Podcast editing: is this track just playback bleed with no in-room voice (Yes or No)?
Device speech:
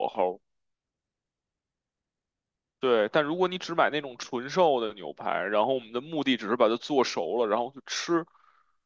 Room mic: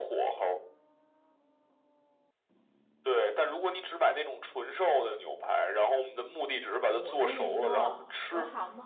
No